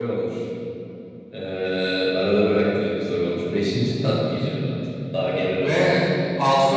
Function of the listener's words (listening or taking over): taking over